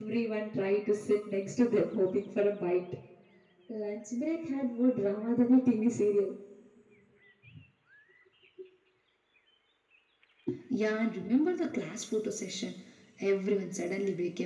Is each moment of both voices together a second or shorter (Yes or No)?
Yes